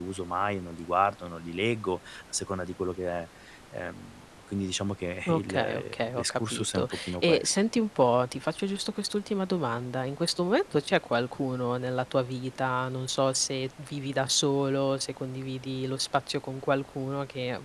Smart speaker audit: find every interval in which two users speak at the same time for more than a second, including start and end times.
5.3-7.6

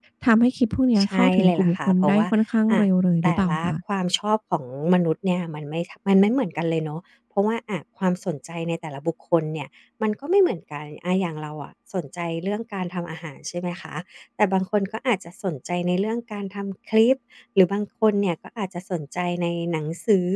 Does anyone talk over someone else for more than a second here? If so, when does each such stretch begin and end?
1.0-2.3

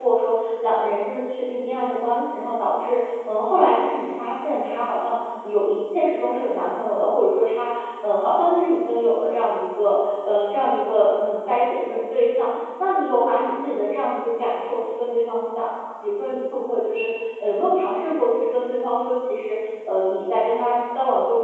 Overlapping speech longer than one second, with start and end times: none

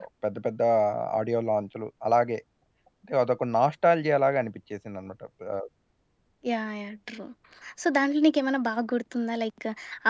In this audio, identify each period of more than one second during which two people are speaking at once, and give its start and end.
none

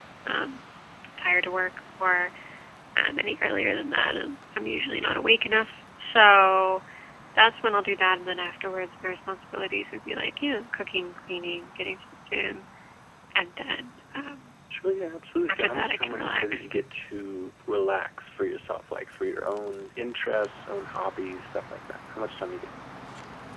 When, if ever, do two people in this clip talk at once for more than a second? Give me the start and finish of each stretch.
15.5-16.7

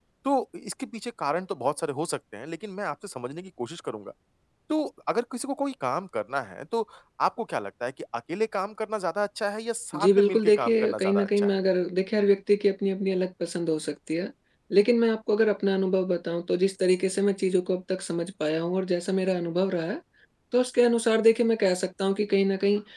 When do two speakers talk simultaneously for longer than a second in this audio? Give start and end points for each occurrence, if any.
10.0-11.6

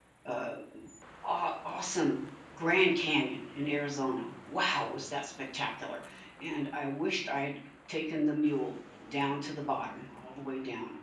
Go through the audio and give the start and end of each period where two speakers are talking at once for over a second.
none

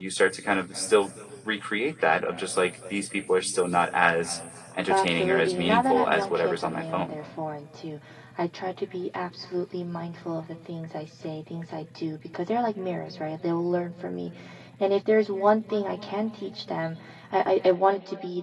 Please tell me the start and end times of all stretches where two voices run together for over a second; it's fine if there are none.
4.9-7.2

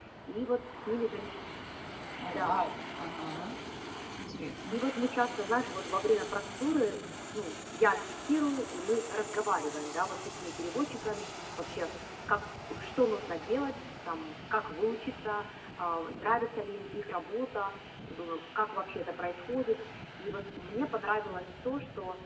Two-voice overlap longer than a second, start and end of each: none

